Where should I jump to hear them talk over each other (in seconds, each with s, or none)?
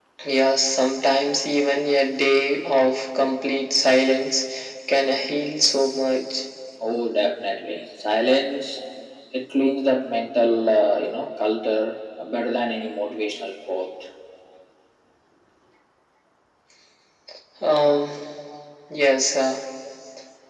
none